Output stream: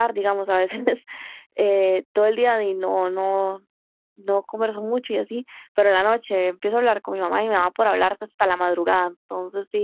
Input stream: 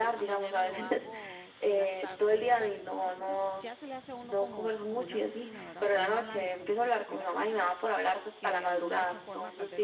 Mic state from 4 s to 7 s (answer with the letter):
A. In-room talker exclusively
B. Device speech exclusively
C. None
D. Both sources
D